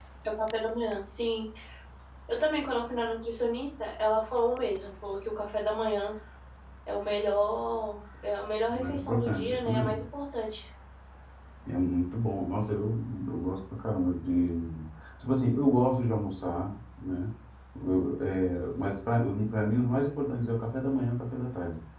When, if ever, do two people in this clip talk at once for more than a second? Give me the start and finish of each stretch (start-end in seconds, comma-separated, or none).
8.7-10.0